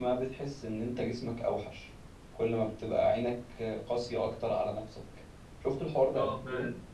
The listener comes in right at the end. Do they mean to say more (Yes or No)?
Yes